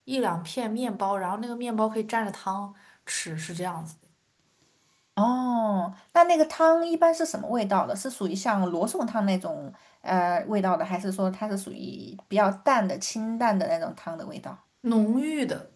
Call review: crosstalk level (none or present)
none